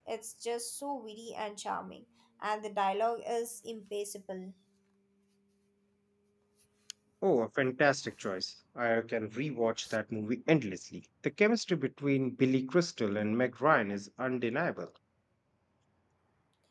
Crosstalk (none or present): none